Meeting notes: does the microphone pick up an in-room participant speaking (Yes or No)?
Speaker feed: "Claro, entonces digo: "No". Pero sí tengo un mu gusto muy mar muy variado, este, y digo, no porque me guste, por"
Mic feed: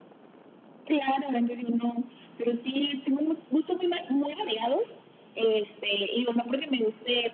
No